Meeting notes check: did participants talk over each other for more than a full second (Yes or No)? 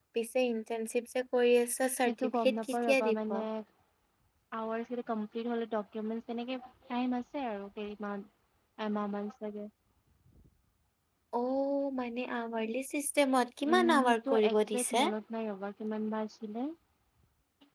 Yes